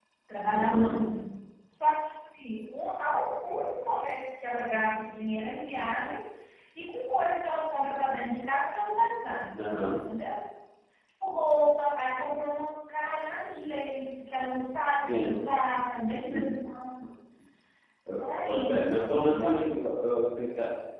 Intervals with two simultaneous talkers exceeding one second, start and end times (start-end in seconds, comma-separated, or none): 18.2-19.6